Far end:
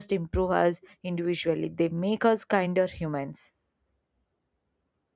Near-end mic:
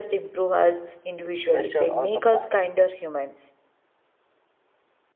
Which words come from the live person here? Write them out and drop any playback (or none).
pressure or comparison.